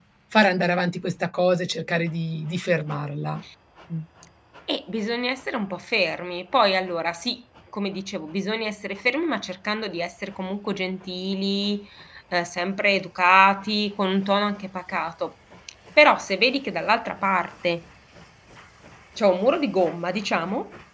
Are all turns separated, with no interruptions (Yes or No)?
Yes